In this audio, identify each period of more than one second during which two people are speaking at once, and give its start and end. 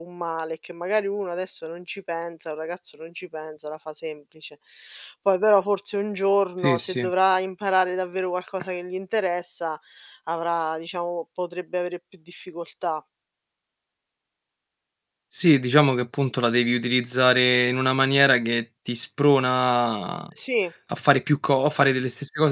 none

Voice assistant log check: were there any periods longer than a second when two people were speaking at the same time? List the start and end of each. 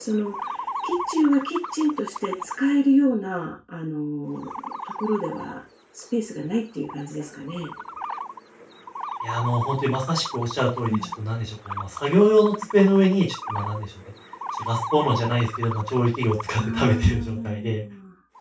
16.6-17.8

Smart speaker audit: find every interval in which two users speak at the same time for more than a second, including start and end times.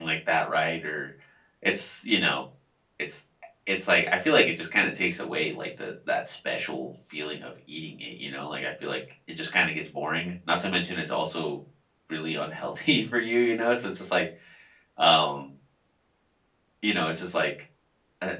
none

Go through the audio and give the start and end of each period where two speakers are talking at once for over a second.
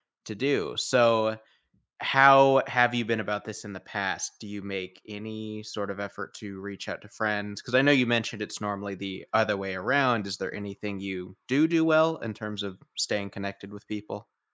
none

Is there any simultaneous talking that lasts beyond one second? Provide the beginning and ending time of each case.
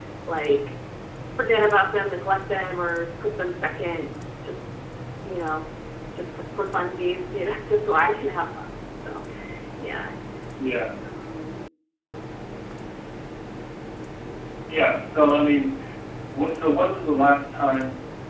none

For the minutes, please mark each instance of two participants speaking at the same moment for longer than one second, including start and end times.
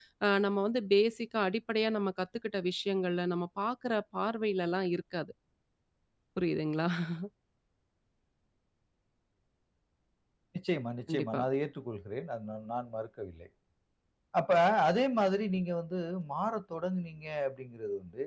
none

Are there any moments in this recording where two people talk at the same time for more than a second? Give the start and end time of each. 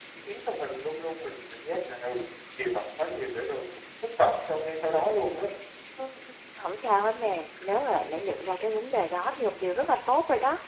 none

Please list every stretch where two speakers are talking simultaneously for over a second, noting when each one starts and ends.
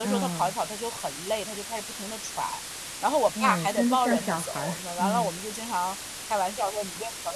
3.4-5.3

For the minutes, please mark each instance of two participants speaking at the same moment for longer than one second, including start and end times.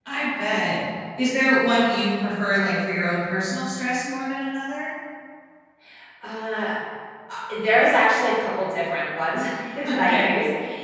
none

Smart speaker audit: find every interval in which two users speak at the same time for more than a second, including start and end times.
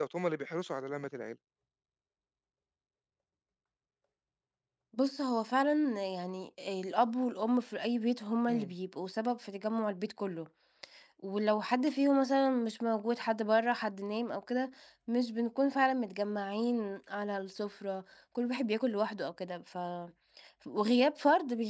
none

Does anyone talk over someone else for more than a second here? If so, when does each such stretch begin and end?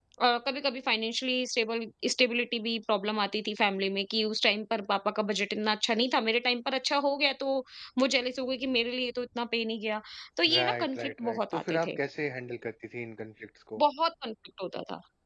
10.5-12.0

